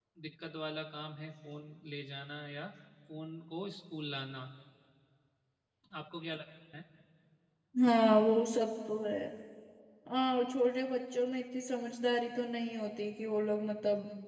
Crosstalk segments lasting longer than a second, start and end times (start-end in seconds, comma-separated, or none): none